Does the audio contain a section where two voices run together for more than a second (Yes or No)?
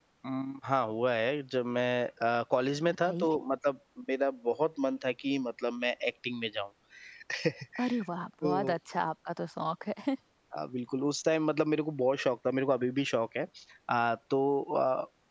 No